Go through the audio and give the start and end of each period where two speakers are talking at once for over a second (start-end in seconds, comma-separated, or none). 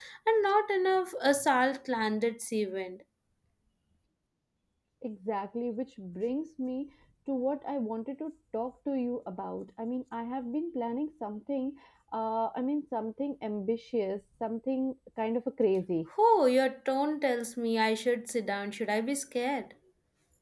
none